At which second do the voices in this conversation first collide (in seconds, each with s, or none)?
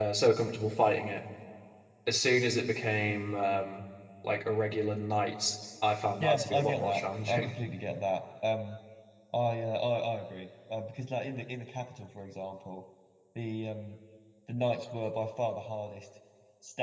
6.2 s